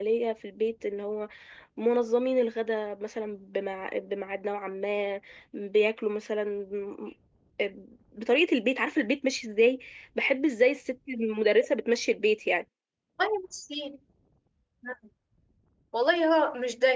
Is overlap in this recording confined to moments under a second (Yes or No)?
Yes